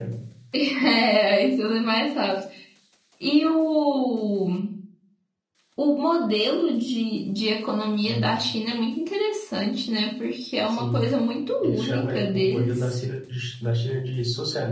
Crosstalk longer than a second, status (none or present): present